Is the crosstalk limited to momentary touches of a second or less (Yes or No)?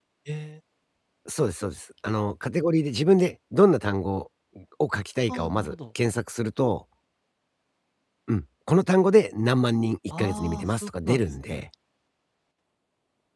No